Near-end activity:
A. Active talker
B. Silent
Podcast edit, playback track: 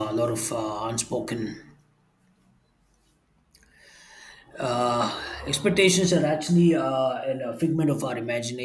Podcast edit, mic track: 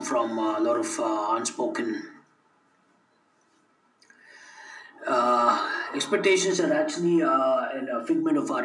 B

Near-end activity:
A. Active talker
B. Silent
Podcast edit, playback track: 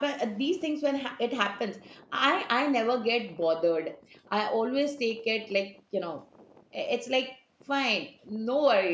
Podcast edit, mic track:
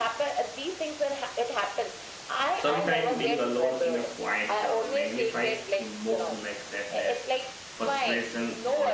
A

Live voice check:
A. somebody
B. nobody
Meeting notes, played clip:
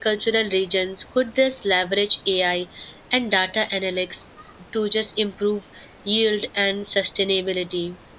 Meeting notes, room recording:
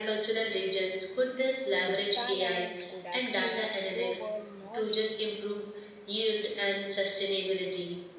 A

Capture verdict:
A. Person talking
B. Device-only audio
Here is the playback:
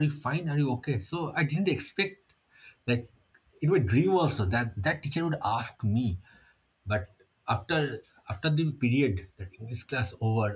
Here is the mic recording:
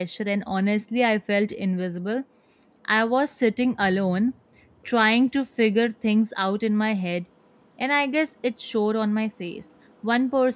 A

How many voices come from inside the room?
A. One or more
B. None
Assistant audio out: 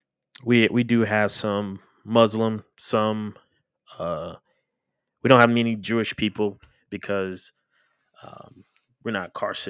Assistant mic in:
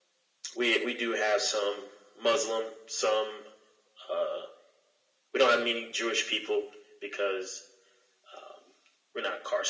B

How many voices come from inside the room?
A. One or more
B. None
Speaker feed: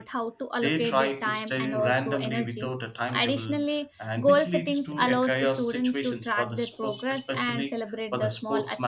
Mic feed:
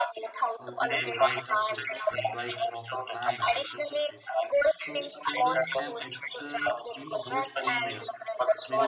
A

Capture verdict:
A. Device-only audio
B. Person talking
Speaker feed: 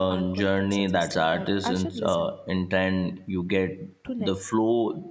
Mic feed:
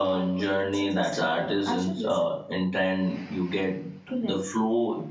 A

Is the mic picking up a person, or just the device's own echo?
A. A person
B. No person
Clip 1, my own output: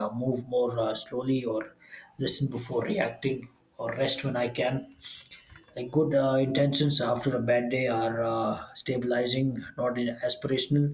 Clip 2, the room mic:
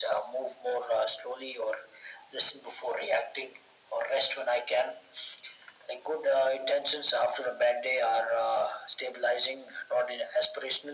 B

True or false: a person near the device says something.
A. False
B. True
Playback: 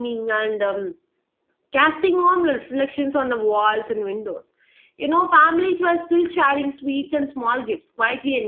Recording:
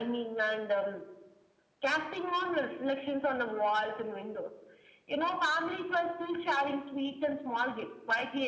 A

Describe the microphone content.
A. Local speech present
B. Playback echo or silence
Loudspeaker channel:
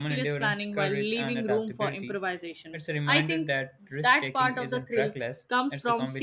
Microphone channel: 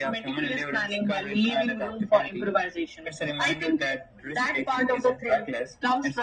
B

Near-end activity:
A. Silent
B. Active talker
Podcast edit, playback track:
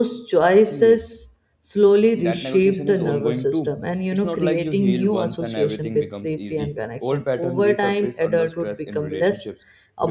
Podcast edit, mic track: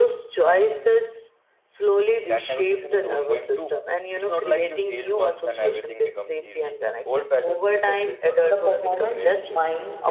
B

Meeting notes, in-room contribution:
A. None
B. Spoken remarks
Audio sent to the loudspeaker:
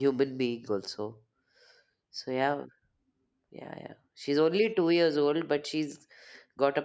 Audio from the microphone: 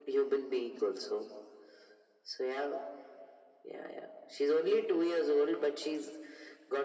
A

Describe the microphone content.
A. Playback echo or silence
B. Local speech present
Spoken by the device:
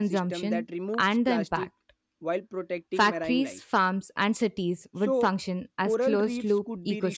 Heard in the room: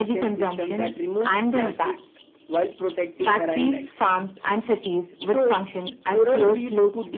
A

